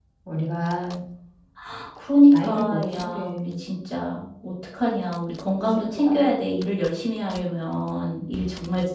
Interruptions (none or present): present